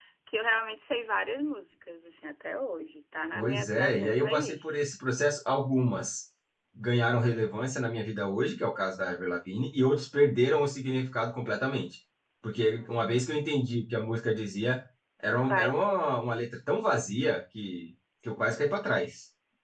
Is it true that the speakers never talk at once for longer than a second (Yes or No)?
No